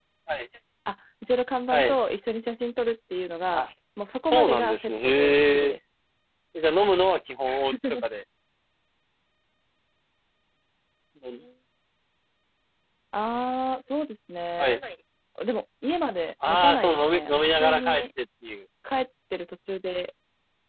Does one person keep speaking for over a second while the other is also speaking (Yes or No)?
Yes